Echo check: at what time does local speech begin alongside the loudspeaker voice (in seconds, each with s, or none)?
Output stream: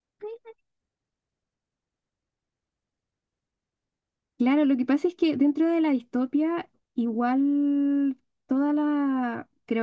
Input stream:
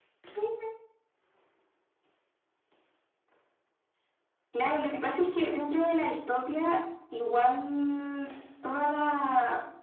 none